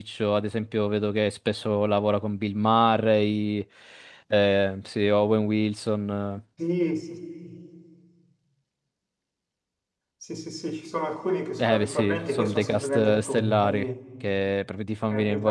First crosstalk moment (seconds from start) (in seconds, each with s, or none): 11.6 s